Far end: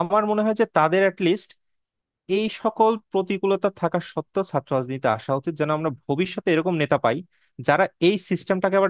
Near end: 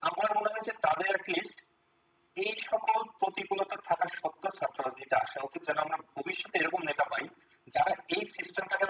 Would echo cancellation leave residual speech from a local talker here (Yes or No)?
No